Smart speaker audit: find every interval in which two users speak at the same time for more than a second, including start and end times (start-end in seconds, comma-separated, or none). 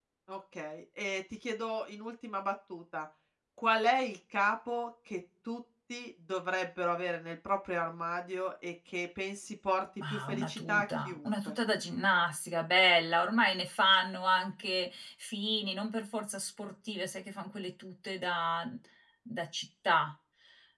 10.1-11.5